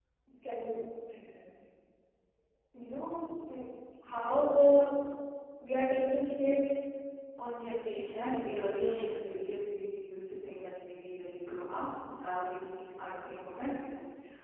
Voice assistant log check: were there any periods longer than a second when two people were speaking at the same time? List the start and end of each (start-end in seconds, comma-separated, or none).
7.9-9.2